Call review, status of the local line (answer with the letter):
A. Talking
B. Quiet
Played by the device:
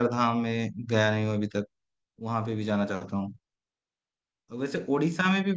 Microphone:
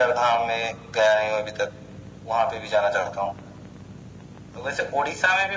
B